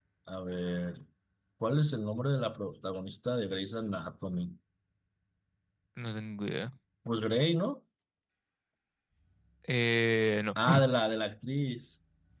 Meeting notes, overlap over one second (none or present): none